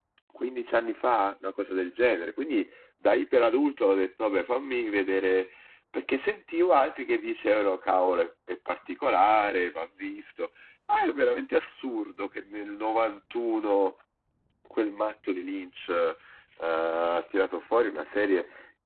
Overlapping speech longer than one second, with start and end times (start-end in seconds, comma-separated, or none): none